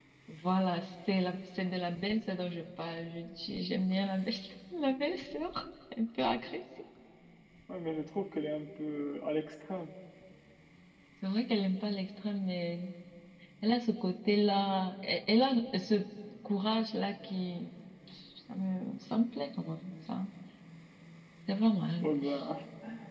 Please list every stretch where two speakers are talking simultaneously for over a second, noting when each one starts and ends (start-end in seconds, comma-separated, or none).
none